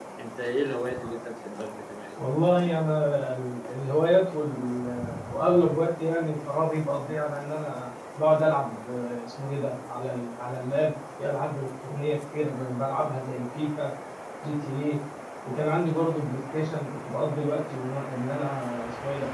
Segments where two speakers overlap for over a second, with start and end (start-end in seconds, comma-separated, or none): none